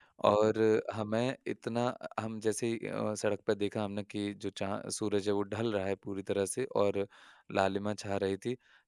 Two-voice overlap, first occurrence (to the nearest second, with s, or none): none